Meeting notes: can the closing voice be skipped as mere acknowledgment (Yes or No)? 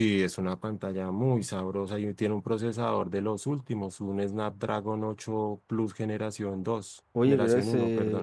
No